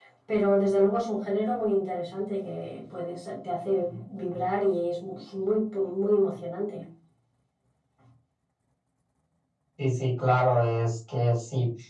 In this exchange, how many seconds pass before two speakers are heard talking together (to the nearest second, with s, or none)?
none